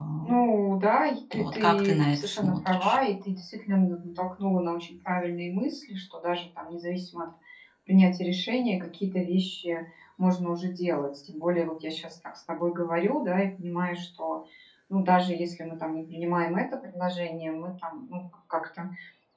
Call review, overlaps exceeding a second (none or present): present